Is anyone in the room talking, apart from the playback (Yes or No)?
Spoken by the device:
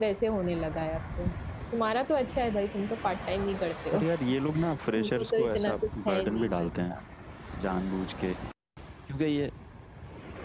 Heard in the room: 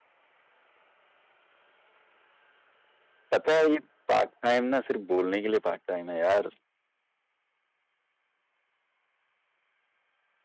Yes